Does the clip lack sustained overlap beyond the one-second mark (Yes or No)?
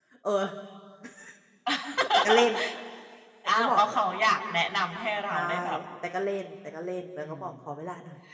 Yes